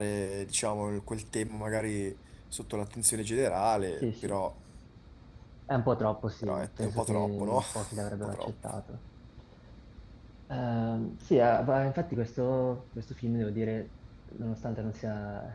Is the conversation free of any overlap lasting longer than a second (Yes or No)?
No